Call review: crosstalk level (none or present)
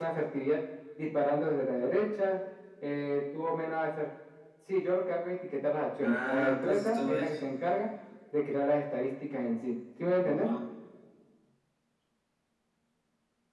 present